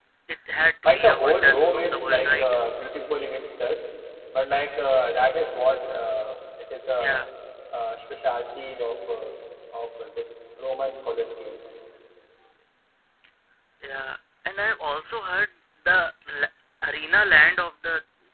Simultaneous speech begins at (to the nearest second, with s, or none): 1 s